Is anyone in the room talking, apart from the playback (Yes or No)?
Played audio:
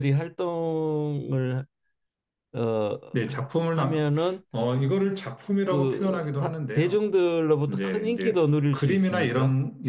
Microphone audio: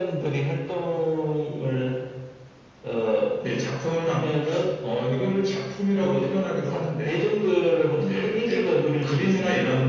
No